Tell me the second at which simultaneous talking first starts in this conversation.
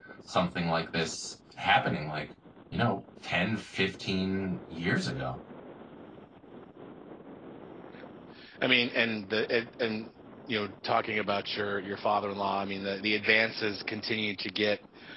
none

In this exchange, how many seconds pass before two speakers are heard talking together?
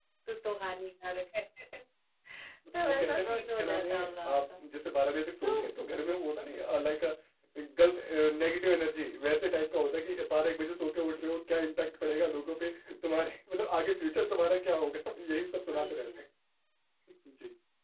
2.8 s

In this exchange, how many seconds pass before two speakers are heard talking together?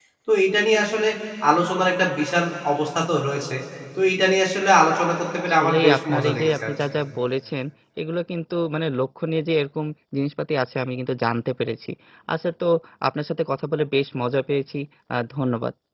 5.5 s

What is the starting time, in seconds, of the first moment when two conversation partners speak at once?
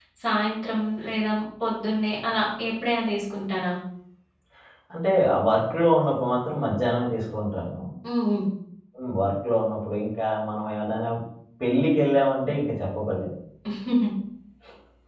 none

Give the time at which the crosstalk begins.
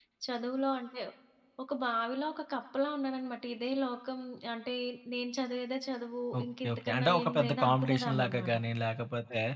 6.3 s

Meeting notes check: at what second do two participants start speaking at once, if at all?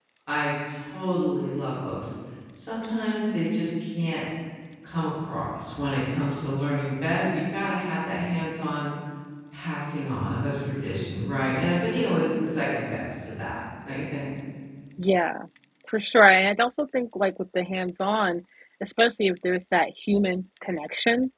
none

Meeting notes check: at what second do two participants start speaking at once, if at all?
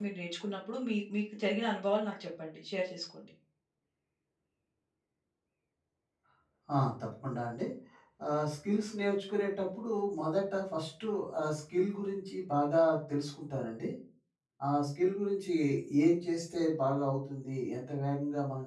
none

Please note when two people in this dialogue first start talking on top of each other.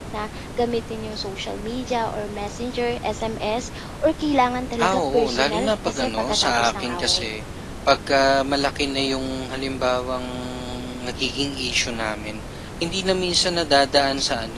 4.7 s

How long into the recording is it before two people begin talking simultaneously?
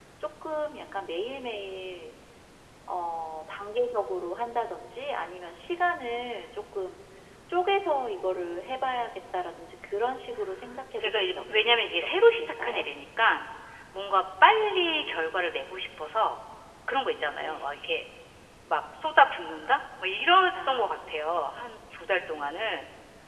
11.0 s

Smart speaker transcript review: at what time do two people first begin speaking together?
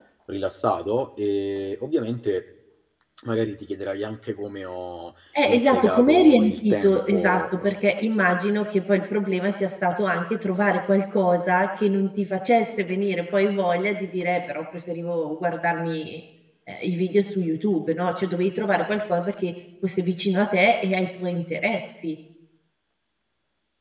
5.3 s

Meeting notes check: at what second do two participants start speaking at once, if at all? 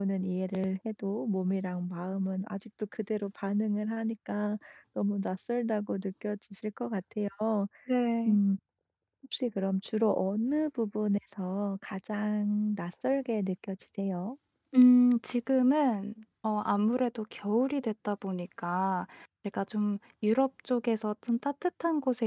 none

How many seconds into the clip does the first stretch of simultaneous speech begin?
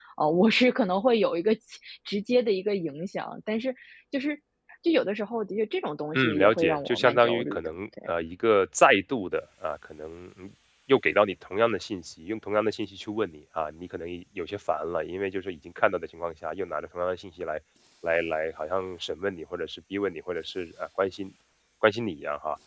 6.1 s

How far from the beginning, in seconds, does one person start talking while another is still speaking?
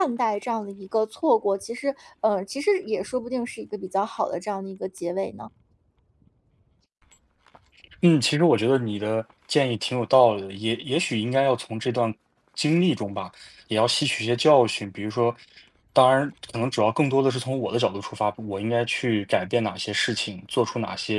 none

